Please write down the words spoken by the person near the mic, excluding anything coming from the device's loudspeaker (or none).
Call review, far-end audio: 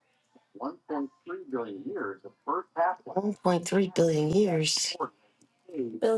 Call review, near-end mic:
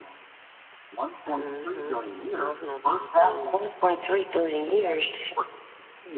Mm-hmm. I'm coughing on people's toes